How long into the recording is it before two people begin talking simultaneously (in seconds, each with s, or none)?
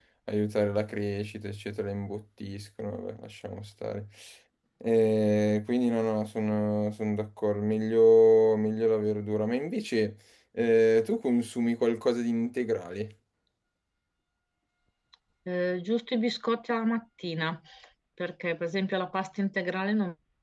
none